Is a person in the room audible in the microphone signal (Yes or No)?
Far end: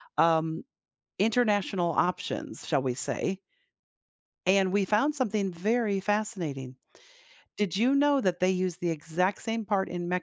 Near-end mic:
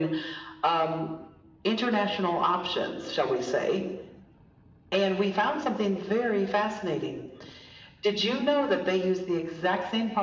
No